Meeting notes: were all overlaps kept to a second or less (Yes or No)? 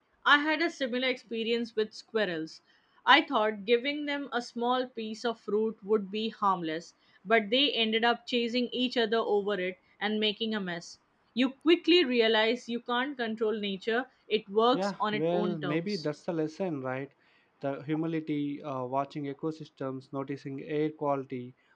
No